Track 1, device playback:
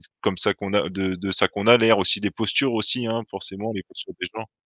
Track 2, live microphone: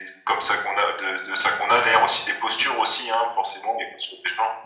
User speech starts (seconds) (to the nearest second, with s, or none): none